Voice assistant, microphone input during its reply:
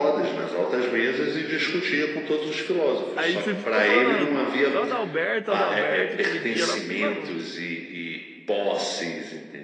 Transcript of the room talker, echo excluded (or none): Aí você ficou falando, "Ah, qual Adalberto, Adalberto, aquele dia lá, eu fiquei, mano,